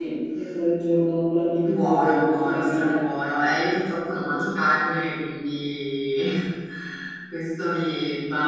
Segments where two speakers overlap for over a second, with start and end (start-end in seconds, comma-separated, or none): 1.6-3.0